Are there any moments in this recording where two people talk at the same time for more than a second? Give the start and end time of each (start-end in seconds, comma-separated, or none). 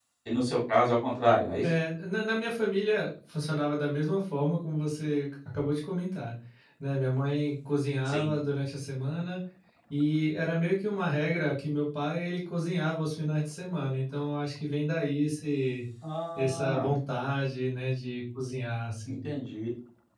none